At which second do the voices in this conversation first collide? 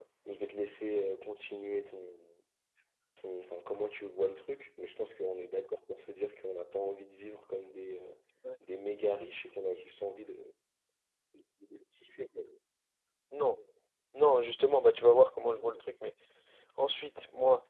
none

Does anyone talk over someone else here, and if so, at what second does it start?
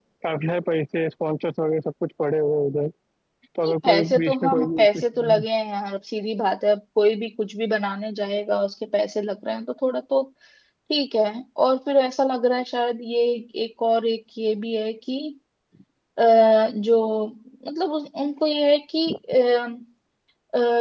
3.6 s

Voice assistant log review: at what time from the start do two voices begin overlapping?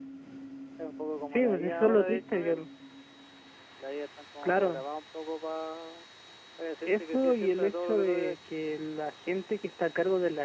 1.3 s

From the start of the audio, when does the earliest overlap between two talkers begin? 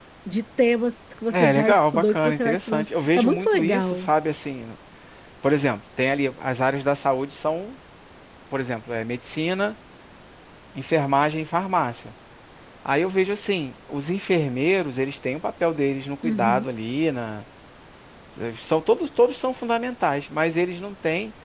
1.3 s

